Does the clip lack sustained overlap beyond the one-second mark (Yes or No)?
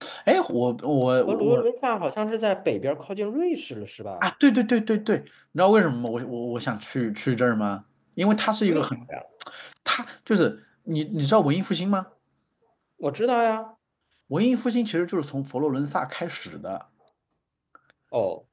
Yes